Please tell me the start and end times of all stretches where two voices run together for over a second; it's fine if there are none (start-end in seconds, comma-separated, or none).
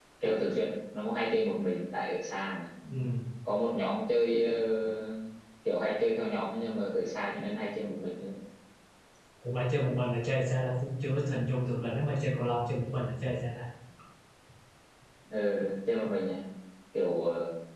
none